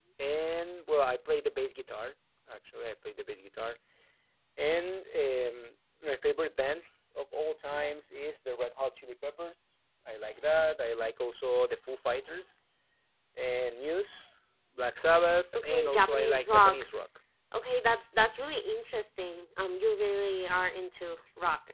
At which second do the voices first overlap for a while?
15.5 s

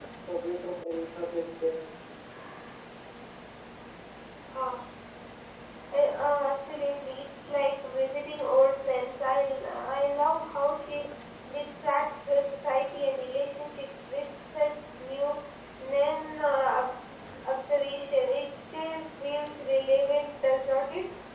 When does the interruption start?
none

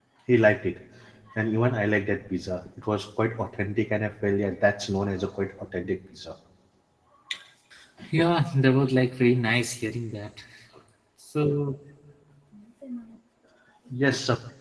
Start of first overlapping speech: none

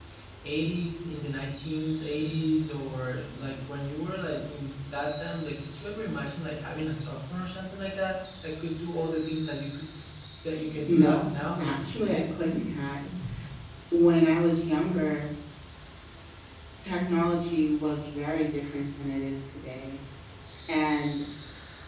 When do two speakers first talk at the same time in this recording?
10.9 s

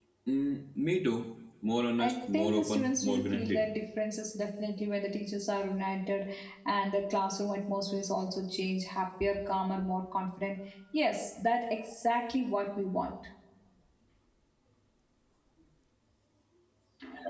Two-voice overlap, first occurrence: 2.0 s

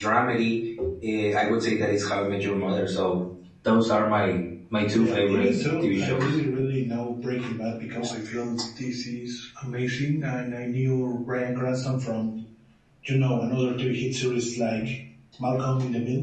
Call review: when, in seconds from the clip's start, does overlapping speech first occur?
4.9 s

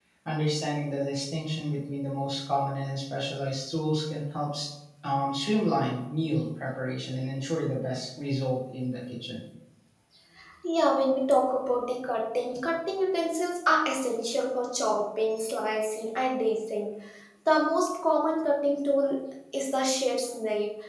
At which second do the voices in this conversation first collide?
none

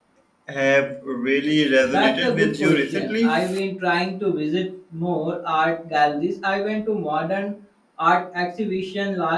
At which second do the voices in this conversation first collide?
1.9 s

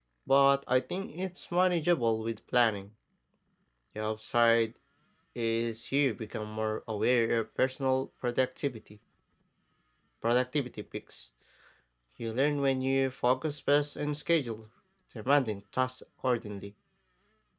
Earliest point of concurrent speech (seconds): none

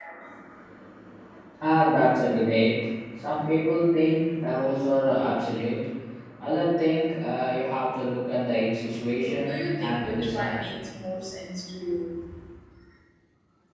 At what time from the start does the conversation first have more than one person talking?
9.2 s

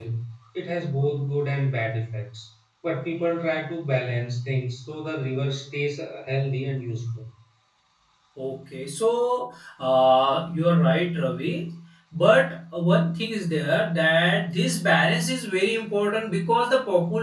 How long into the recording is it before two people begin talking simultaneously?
none

